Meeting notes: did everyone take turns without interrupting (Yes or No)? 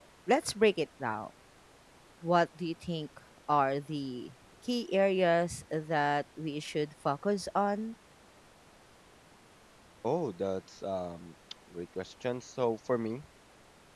Yes